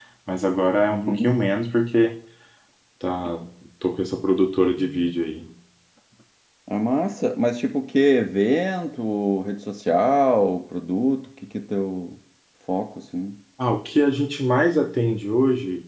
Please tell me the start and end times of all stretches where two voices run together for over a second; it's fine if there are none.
none

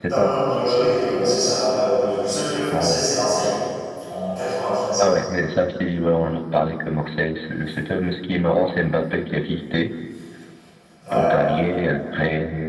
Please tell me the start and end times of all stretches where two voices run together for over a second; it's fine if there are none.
none

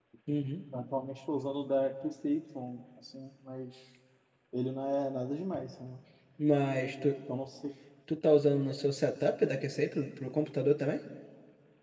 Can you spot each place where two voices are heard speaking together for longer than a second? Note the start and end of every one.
none

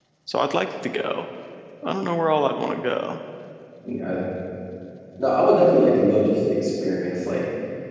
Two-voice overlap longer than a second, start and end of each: none

